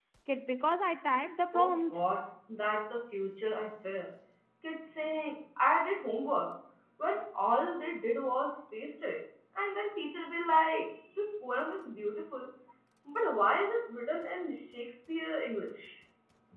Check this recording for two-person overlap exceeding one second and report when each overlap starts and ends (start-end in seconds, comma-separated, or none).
none